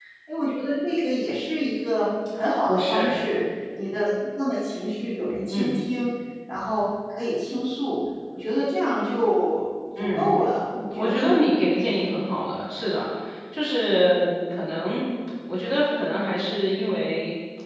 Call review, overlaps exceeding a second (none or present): none